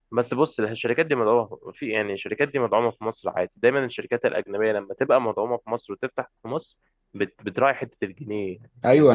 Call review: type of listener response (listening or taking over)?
taking over